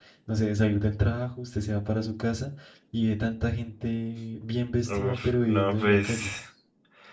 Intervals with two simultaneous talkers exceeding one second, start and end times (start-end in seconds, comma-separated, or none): 4.9-6.3